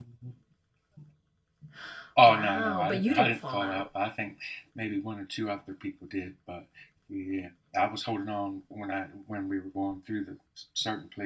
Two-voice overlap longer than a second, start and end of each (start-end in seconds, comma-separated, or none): 2.2-3.9